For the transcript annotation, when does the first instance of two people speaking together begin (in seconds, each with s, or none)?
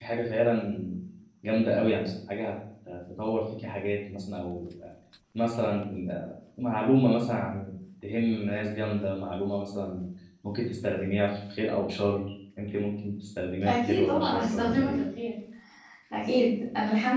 13.7 s